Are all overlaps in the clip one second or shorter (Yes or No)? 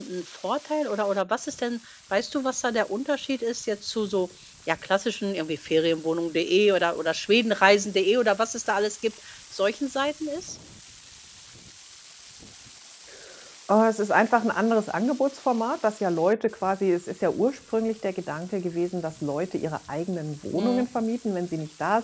Yes